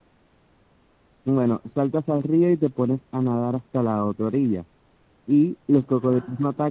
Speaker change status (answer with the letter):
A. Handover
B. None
B